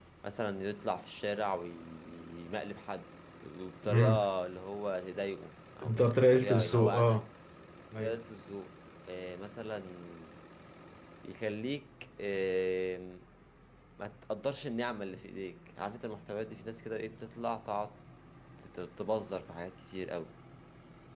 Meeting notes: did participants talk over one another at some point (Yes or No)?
Yes